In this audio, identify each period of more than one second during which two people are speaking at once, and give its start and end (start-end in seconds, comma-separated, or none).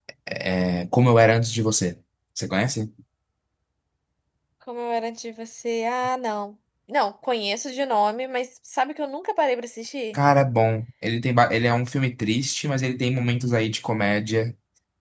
none